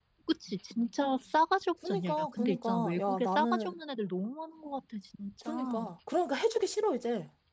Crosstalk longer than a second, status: present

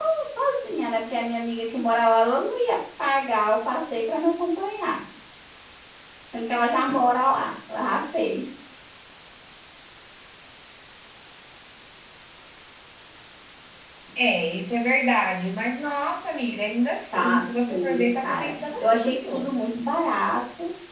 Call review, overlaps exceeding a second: present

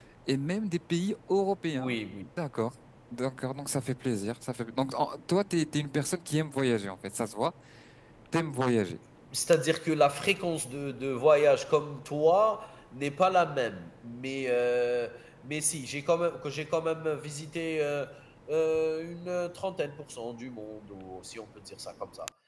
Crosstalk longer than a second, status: none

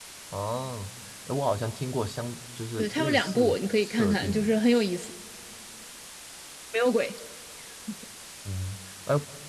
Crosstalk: present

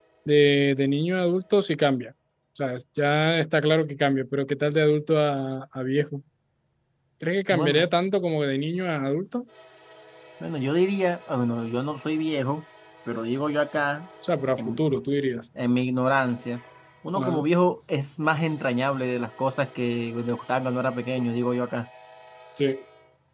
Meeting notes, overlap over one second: none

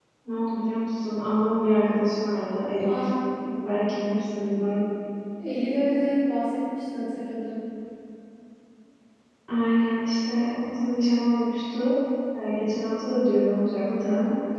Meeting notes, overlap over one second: none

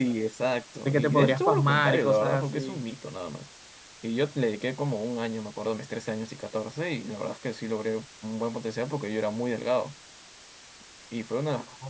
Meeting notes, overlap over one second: present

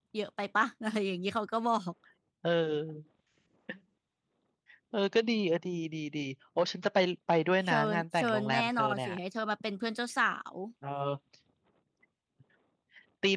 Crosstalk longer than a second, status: present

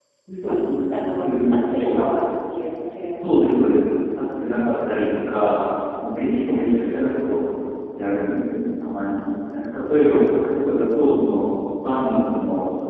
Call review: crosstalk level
present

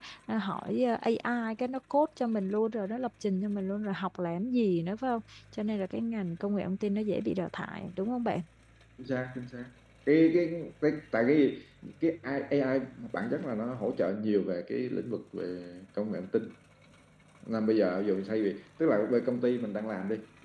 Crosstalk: none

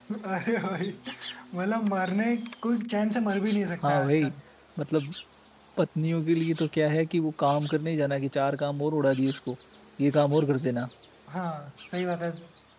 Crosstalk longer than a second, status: none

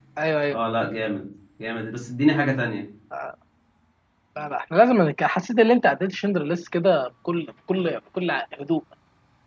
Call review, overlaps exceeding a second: none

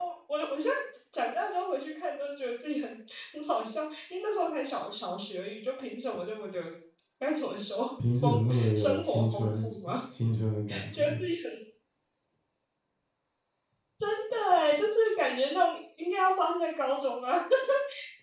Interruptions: present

